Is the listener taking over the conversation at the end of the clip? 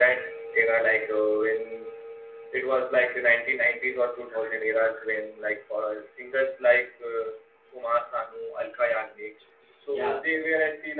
No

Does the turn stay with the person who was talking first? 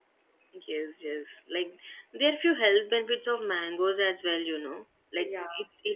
Yes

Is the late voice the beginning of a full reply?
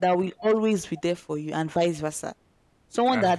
No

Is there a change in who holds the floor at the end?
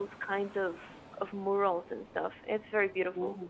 No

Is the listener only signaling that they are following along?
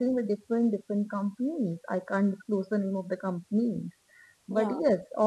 Yes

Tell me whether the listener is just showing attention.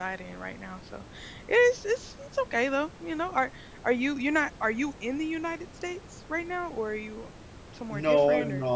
No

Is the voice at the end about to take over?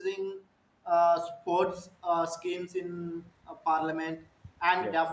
No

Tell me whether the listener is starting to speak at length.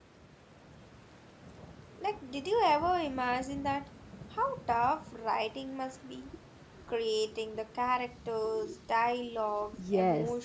Yes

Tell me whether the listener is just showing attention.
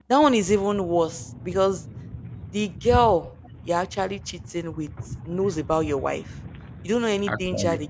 Yes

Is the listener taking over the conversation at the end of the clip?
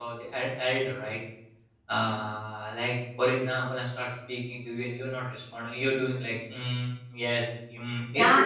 Yes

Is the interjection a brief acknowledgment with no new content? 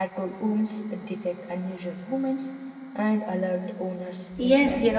No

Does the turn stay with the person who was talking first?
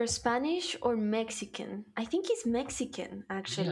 No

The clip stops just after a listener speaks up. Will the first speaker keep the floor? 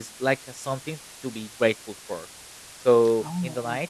Yes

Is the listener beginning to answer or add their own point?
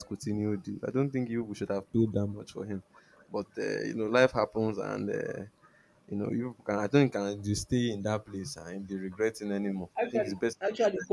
Yes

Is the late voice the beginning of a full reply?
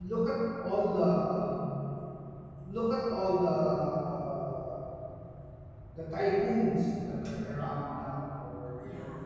No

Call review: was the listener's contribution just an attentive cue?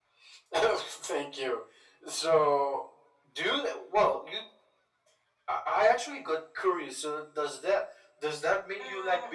No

